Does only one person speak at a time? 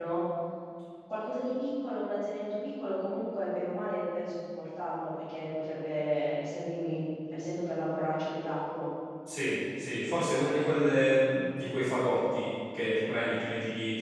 Yes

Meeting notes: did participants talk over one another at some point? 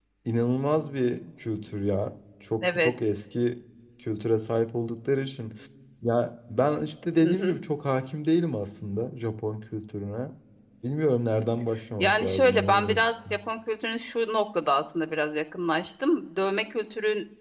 Yes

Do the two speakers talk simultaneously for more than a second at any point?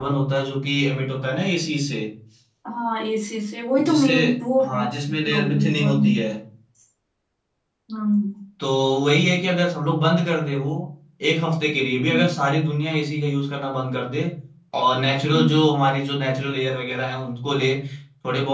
Yes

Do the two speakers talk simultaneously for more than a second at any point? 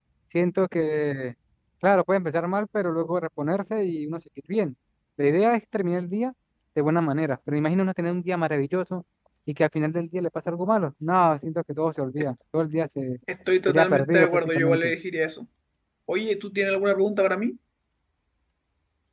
Yes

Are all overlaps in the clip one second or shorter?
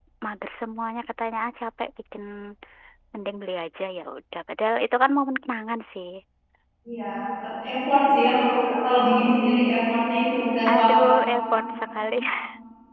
Yes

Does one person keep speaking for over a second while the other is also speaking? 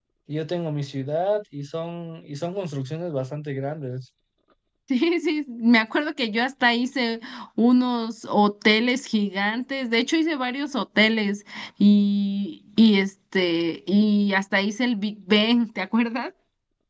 No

